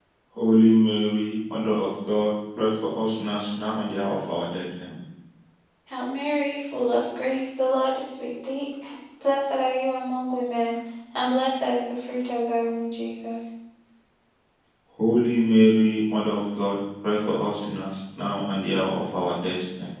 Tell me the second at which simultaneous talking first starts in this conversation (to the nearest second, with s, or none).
none